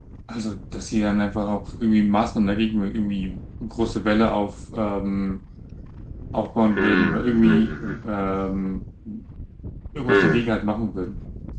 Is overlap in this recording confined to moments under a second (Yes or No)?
No